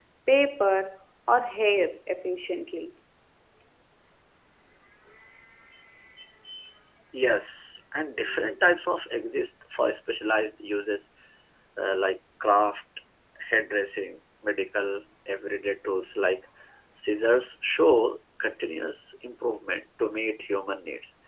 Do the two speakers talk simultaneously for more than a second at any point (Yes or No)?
No